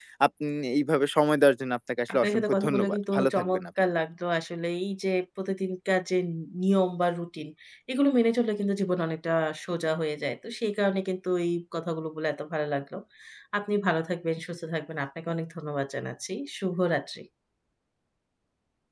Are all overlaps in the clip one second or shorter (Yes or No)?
No